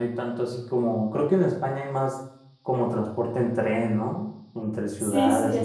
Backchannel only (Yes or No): No